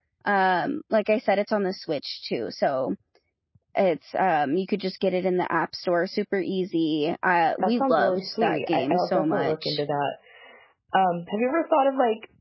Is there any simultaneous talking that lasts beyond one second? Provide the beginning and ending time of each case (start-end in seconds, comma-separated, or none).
7.6-9.8